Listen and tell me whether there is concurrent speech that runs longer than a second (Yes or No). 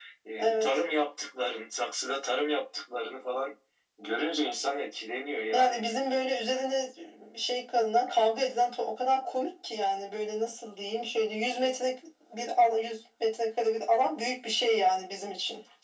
No